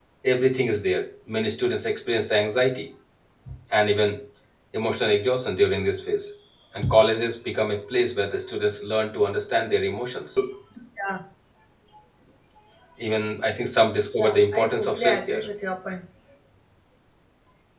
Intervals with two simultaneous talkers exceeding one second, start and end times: 14.2-15.4

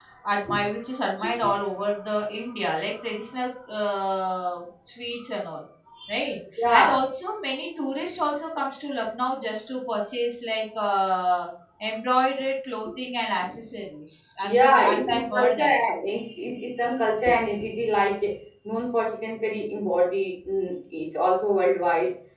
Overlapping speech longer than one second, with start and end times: 14.4-15.7

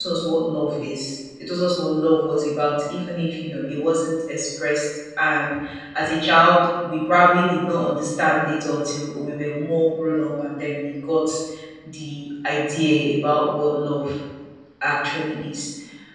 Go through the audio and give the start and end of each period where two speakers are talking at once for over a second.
none

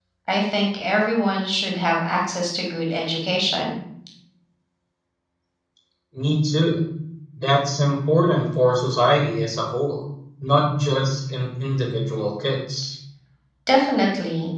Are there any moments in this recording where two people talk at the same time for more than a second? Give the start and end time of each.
none

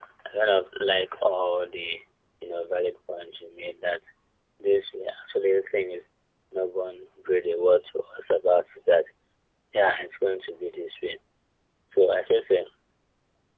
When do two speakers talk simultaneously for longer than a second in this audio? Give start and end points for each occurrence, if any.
none

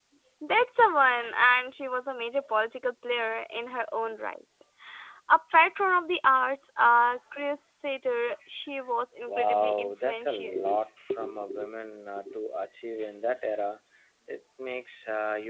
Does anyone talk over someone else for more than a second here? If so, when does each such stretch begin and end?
9.3-10.5

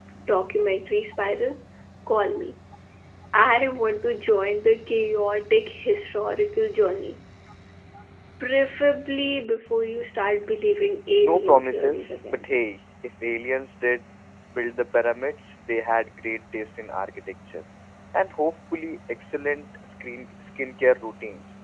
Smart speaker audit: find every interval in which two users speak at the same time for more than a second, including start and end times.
11.2-12.5

